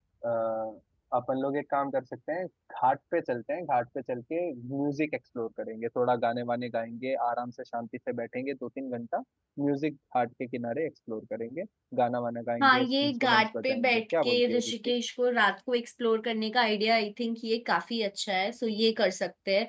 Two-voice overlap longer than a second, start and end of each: 12.6-14.7

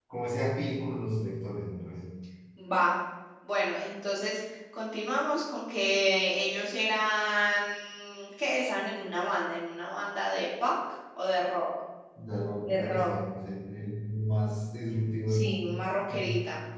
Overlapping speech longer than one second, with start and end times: none

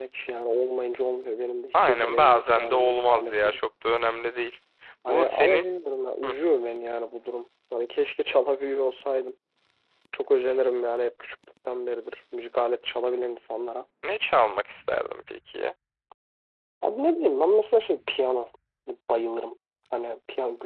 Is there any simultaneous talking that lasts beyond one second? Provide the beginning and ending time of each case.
1.7-3.5

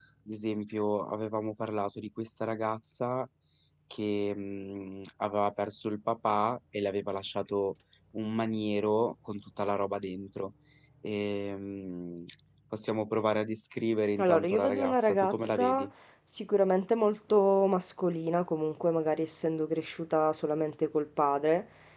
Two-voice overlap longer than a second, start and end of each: 14.2-15.9

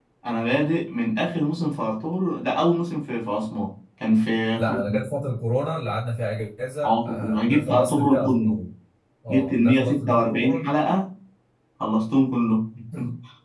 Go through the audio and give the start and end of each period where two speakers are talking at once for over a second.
6.8-8.6, 9.3-10.7

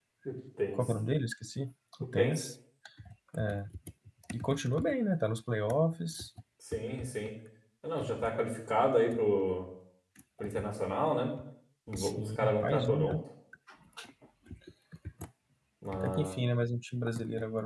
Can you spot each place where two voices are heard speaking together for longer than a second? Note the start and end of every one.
12.0-13.2

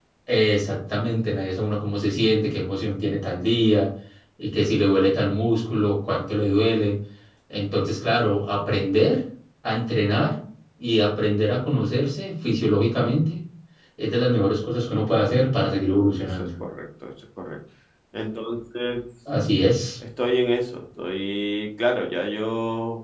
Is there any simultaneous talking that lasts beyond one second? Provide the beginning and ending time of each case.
none

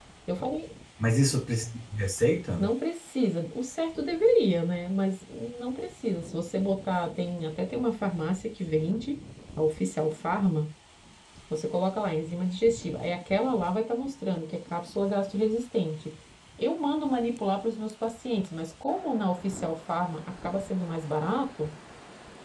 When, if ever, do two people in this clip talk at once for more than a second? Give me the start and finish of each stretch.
none

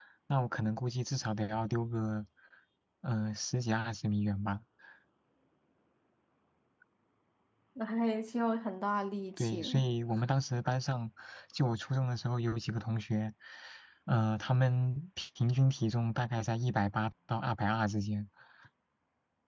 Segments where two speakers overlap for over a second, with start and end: none

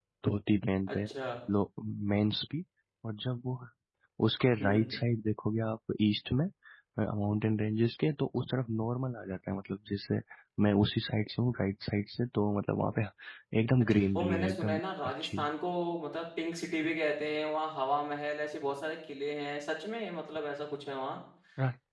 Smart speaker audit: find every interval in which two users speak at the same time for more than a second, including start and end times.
13.8-15.5

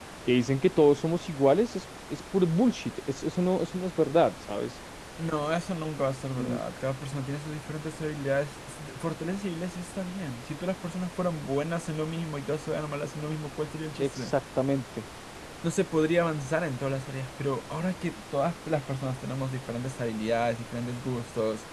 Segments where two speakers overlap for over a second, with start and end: none

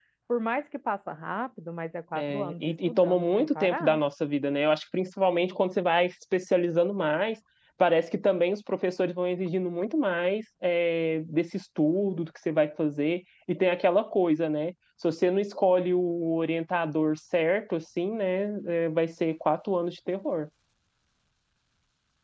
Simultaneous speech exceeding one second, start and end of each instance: 2.1-4.0

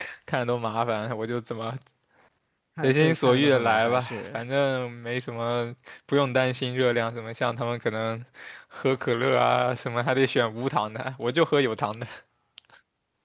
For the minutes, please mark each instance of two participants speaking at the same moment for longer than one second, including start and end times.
2.8-4.4

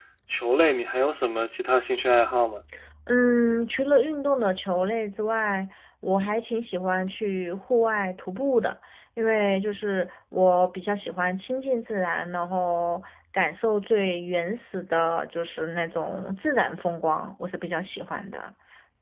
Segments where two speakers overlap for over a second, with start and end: none

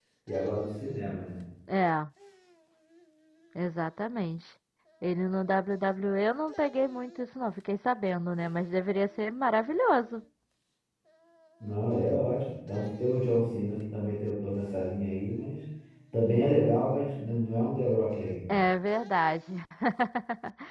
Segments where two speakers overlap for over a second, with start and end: none

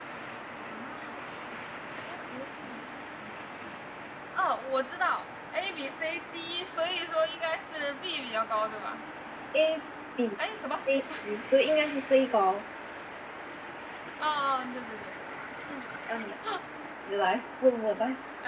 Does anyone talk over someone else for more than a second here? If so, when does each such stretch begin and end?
none

